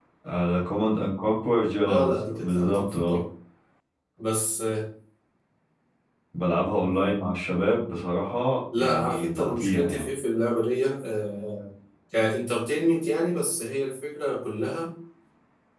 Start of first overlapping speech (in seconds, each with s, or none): 1.8 s